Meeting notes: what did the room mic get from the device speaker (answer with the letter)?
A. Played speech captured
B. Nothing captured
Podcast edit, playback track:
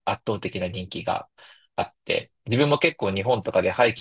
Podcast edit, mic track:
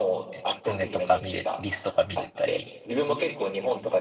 A